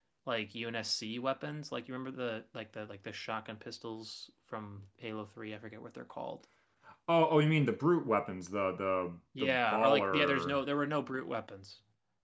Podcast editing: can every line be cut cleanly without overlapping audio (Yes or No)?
No